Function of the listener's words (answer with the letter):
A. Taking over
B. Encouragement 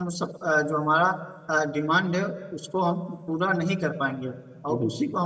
B